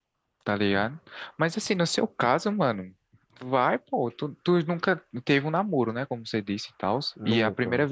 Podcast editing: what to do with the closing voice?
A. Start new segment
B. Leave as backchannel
B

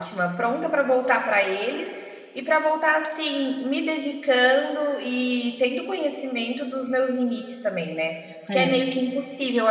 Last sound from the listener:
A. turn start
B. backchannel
B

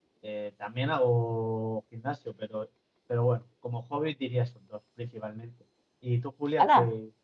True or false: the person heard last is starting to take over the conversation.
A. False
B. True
B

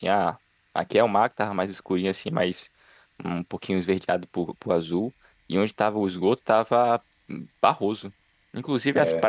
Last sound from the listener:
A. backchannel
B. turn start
A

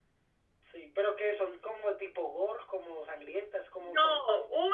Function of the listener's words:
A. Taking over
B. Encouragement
A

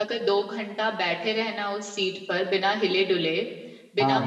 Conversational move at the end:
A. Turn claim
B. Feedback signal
B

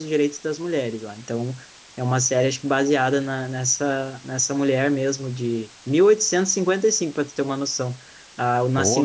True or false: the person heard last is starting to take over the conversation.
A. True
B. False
B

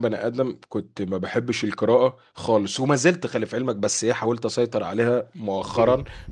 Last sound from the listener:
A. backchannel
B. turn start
A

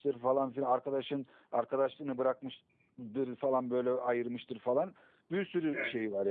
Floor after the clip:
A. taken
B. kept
B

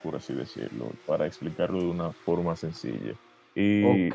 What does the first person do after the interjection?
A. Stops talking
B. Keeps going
A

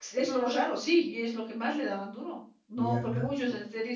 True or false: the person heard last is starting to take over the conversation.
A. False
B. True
A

